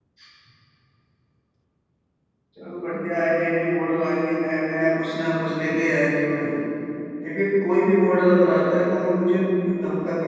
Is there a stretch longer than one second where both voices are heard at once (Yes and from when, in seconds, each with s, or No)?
No